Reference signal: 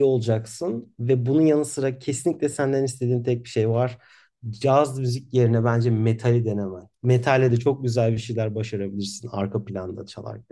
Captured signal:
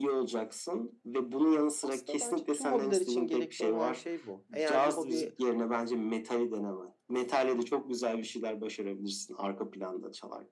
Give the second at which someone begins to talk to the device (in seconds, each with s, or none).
1.8 s